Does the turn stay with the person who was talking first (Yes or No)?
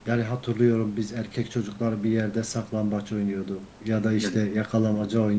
Yes